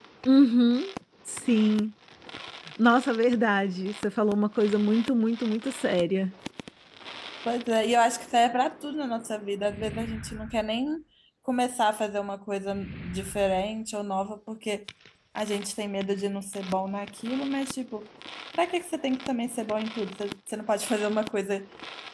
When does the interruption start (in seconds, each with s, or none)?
none